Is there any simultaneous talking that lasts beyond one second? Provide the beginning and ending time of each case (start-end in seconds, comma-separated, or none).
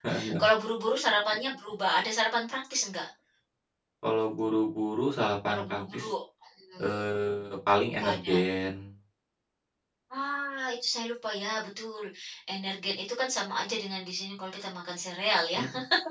none